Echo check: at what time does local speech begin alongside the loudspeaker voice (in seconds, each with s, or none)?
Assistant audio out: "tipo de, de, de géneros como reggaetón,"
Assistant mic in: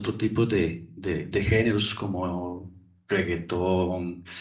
none